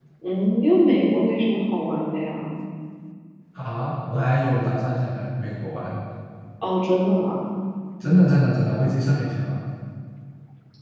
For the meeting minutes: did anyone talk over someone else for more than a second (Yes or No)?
No